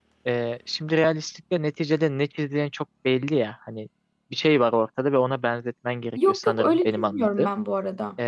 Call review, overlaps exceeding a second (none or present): present